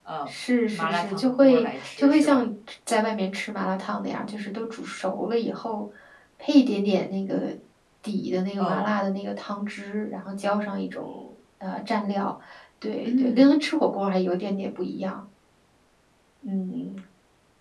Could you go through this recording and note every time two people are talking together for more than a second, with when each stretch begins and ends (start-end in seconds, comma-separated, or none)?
0.7-2.5